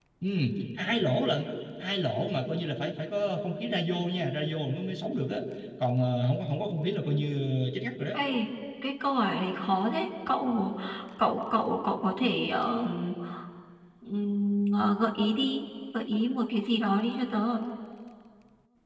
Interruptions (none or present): none